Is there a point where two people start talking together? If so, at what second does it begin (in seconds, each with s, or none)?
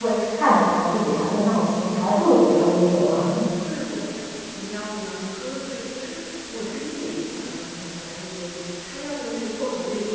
none